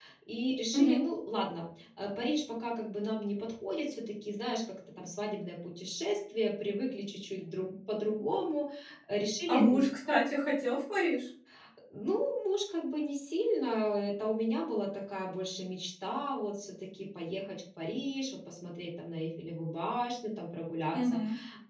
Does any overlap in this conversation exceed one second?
No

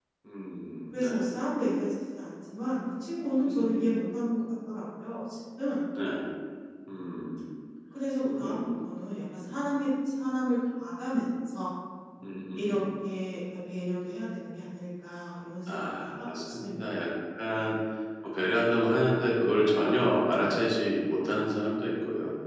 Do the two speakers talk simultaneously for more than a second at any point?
Yes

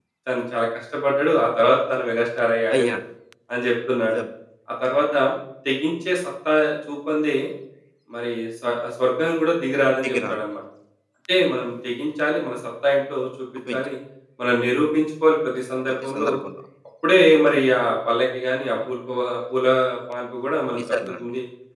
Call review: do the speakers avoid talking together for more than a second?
Yes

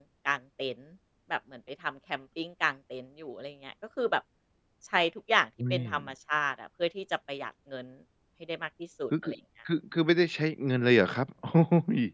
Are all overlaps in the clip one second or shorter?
Yes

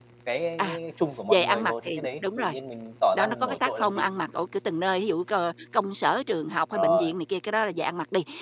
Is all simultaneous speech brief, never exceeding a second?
No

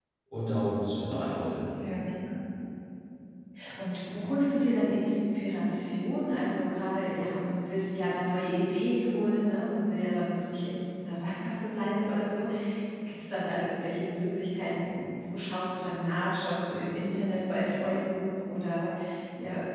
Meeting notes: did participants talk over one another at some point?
No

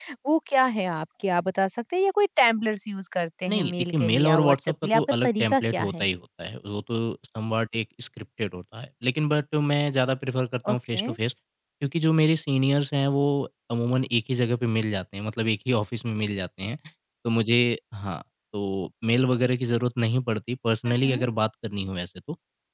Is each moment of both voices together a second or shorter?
No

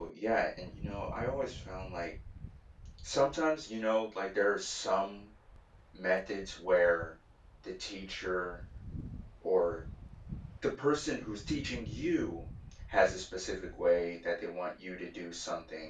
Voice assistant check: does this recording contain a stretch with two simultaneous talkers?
No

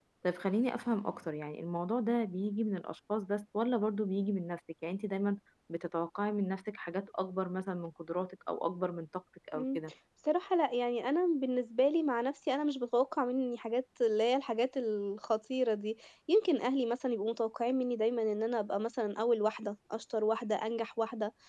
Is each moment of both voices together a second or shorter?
Yes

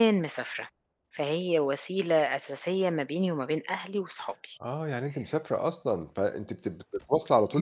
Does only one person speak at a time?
Yes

